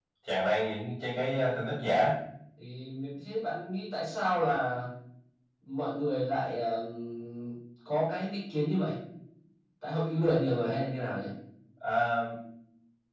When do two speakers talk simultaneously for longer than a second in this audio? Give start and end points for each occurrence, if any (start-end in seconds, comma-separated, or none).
none